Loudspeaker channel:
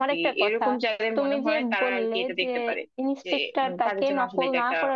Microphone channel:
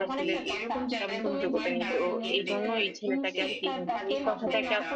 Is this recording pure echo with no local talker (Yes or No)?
No